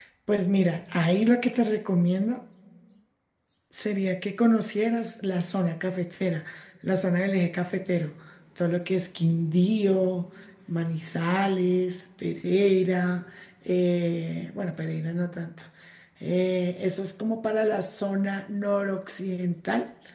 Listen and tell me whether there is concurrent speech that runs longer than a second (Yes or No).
No